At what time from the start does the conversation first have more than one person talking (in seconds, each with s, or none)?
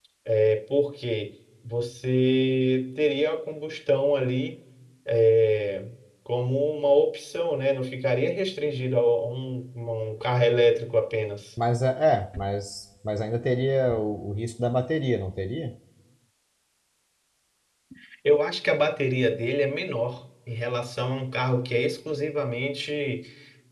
none